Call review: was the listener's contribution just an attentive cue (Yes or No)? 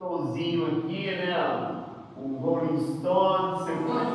Yes